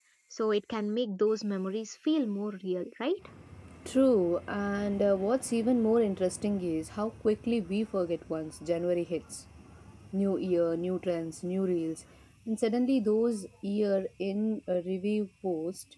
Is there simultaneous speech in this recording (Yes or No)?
No